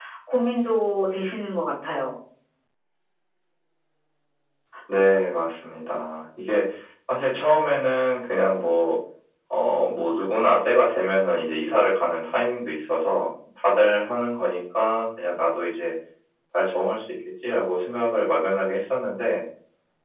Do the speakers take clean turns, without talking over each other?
Yes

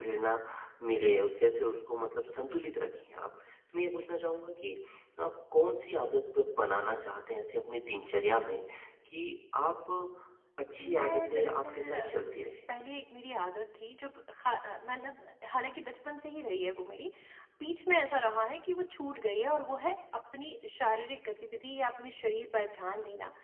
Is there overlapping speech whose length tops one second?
Yes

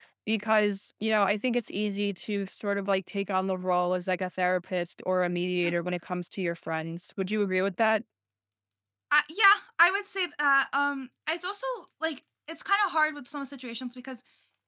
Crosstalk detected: No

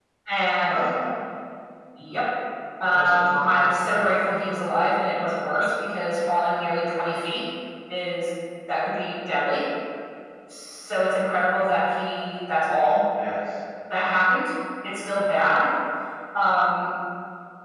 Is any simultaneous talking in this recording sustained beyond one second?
Yes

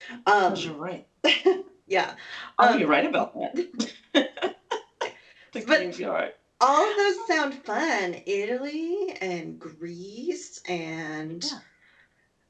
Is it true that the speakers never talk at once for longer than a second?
Yes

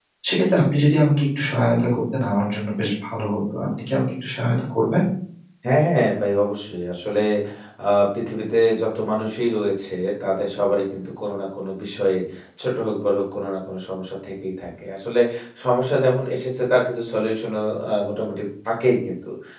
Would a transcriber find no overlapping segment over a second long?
Yes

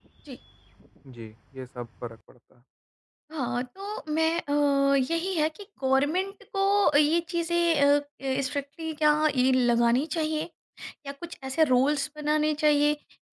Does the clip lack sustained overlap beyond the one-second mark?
Yes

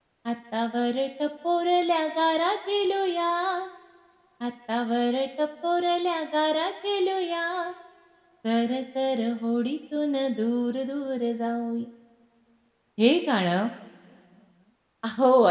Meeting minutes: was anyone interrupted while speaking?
No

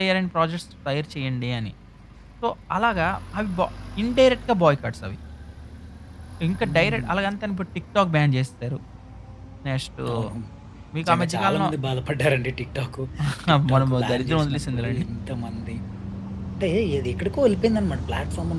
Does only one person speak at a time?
No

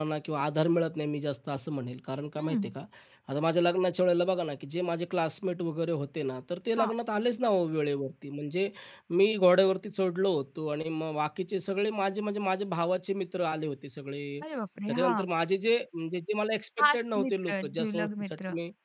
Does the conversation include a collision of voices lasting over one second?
Yes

